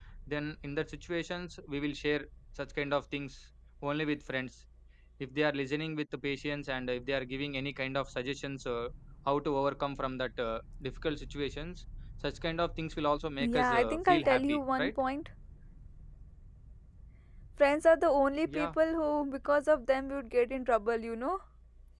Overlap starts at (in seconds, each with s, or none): 13.4 s